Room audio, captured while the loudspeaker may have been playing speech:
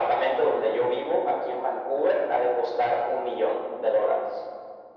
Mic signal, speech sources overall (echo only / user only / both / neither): echo only